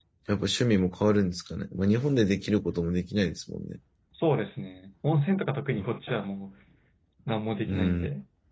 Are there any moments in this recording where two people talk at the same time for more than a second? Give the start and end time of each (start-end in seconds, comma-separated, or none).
none